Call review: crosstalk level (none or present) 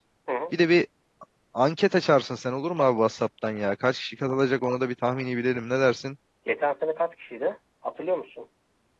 none